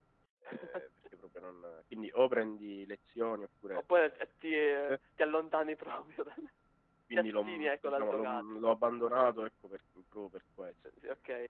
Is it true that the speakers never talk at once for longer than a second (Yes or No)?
No